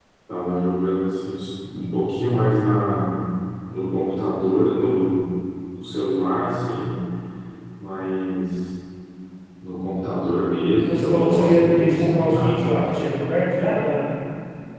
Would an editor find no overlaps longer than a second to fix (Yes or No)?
No